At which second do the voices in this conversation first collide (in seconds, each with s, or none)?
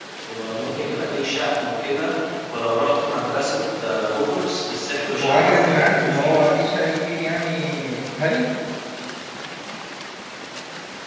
5.2 s